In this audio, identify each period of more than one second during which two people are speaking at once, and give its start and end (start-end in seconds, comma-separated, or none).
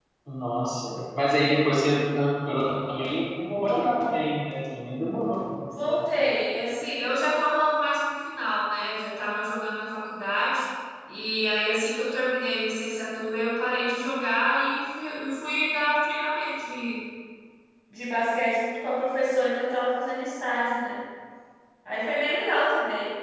none